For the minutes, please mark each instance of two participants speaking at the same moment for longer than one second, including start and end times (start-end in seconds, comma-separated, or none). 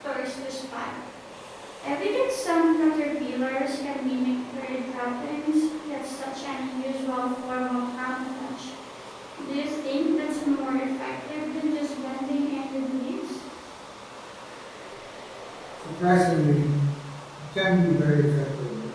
none